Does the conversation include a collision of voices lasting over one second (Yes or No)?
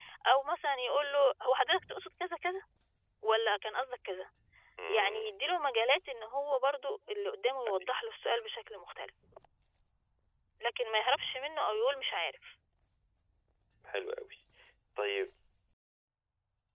No